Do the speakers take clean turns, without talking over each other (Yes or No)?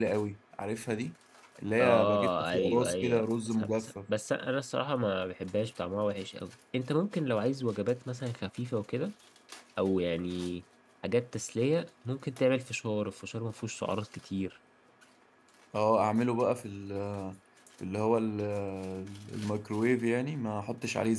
No